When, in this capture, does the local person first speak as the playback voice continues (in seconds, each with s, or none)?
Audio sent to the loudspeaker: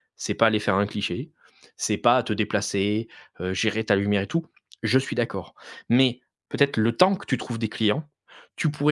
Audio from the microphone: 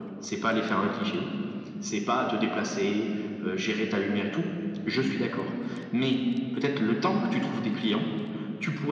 none